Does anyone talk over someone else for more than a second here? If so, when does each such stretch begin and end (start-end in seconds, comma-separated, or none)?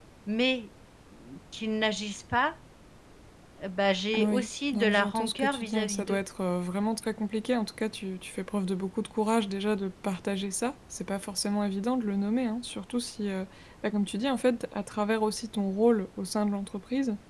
4.1-6.2